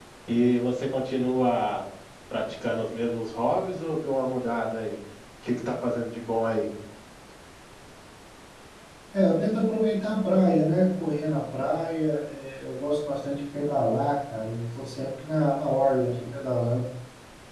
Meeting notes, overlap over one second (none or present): none